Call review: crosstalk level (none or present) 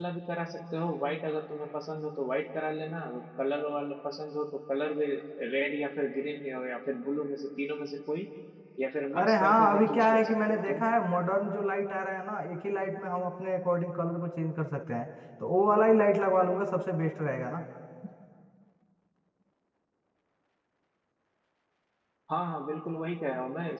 present